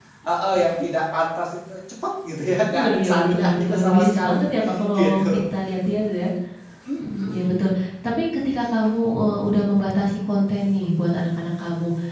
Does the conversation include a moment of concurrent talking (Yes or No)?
Yes